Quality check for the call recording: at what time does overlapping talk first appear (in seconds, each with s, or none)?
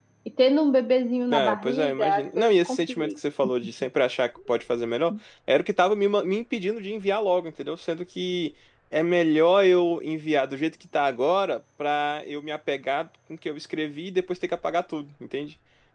1.3 s